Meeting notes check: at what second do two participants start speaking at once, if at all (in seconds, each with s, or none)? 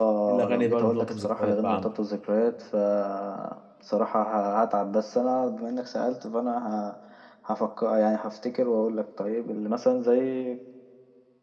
0.5 s